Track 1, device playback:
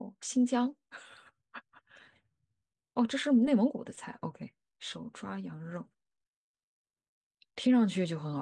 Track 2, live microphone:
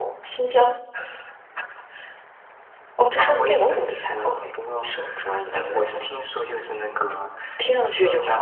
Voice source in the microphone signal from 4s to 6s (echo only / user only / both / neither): both